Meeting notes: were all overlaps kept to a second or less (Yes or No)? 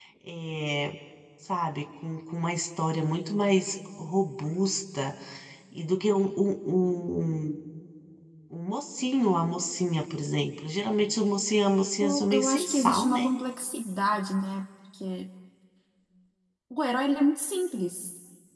No